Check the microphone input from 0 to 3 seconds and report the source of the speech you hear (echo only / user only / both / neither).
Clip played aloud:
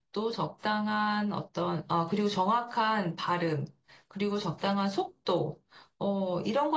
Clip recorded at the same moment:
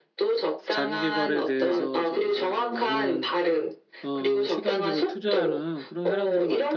both